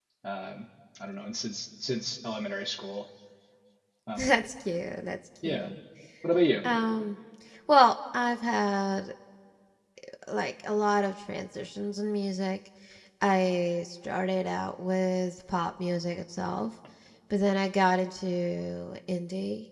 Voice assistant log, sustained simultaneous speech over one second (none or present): none